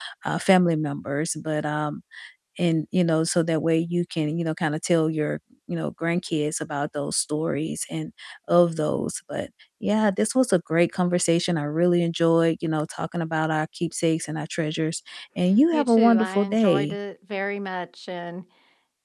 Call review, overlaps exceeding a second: present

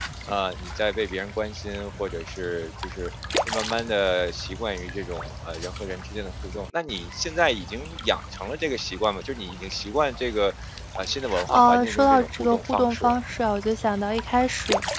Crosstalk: present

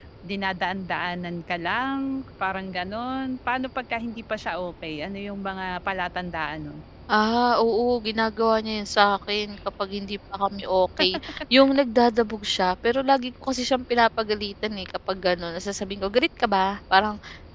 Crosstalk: none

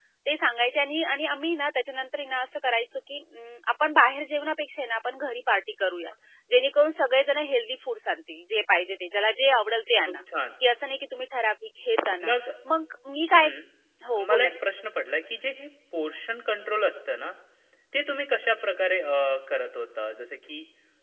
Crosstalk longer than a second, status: none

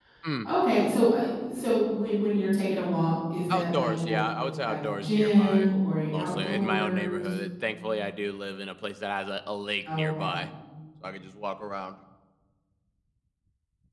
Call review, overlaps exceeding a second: present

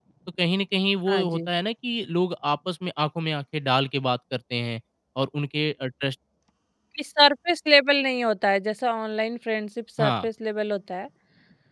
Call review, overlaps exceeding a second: none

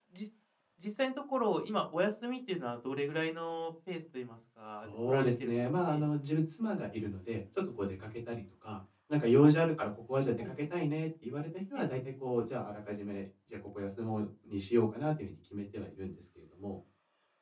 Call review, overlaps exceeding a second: present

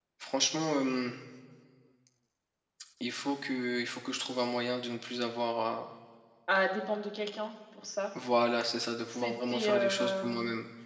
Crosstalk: present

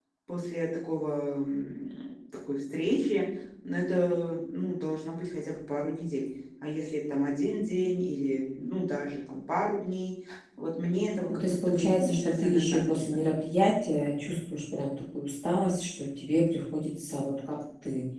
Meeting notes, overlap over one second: present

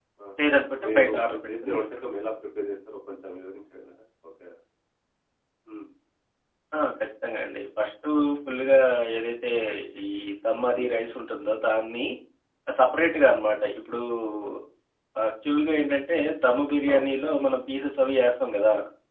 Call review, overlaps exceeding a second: present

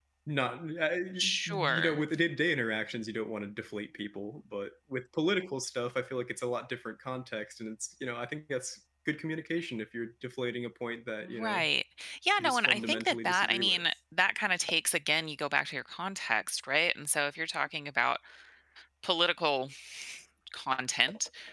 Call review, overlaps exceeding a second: present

